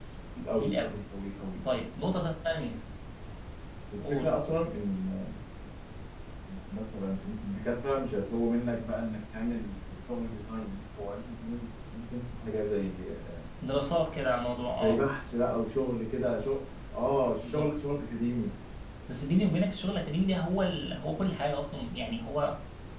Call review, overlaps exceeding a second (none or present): none